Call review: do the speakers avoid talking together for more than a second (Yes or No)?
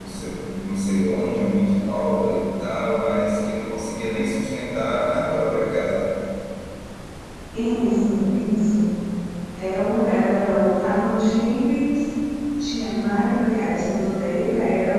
Yes